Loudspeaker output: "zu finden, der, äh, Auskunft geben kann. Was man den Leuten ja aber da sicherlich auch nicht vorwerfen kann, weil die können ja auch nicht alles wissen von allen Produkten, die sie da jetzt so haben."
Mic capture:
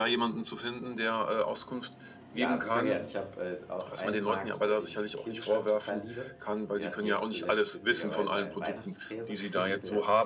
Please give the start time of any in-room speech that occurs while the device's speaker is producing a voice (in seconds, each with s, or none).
2.3 s